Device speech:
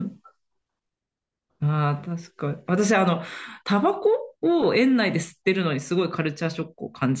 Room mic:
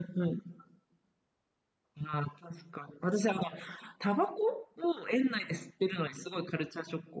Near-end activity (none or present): none